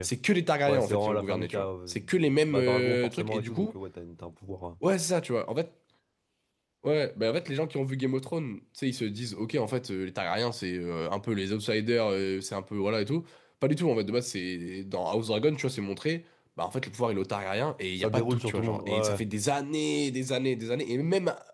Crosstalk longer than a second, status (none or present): present